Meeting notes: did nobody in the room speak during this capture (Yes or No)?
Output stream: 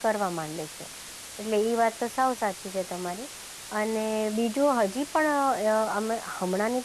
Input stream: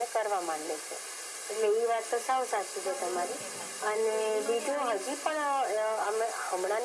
No